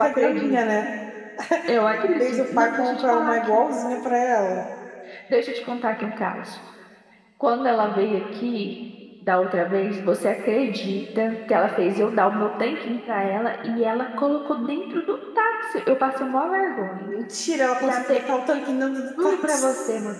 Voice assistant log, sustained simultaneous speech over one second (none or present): present